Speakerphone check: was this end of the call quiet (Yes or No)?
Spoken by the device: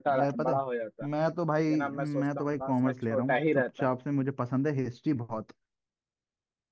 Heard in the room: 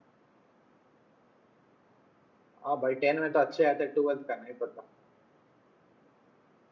No